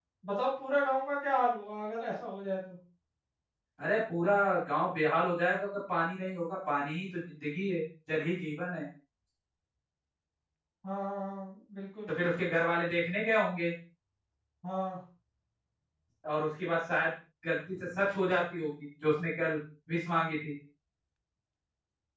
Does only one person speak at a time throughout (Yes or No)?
Yes